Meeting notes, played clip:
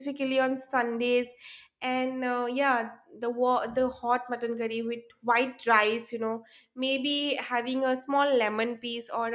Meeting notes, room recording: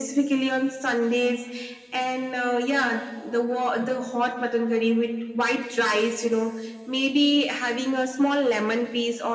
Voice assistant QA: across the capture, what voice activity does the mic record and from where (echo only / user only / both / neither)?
echo only